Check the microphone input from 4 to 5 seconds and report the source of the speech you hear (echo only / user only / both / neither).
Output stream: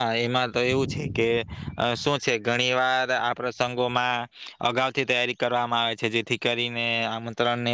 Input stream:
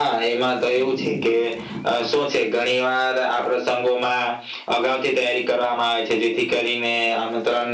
echo only